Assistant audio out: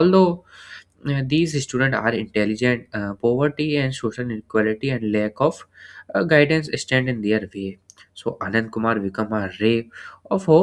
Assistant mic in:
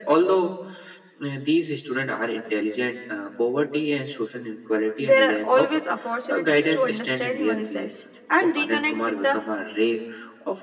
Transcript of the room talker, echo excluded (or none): there are always opportunities to understand oneself and reconnect with the